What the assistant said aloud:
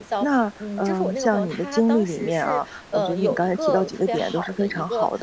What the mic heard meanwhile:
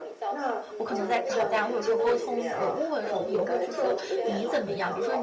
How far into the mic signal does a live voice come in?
0.8 s

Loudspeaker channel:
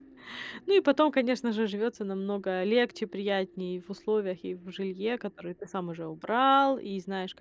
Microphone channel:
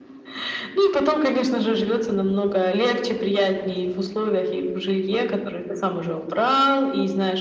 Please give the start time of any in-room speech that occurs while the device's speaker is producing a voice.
none

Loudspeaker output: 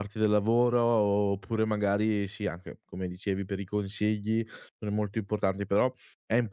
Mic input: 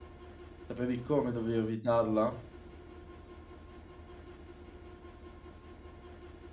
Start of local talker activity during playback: 0.7 s

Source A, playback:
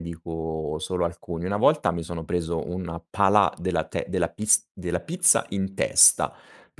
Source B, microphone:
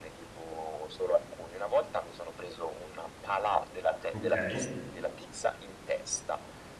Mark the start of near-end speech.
4.1 s

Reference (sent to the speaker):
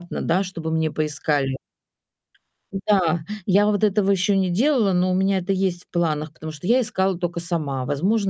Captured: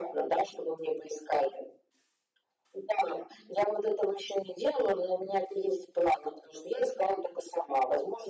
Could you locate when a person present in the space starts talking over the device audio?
none

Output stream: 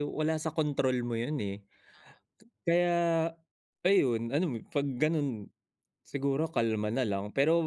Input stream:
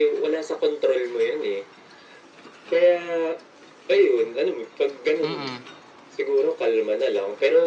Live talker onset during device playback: 5.2 s

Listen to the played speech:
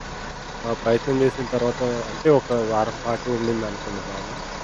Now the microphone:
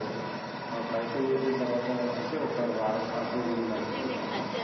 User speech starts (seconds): 3.2 s

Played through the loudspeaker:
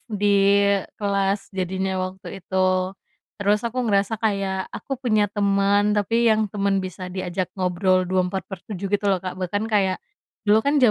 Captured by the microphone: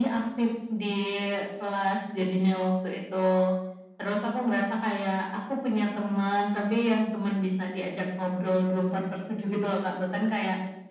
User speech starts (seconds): none

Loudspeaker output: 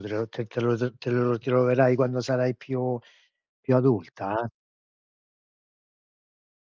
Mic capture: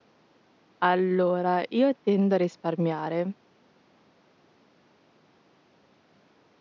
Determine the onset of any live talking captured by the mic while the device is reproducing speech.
0.8 s

